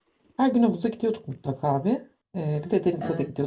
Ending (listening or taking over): listening